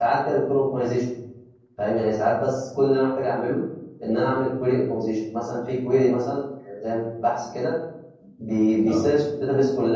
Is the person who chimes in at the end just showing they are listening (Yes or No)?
Yes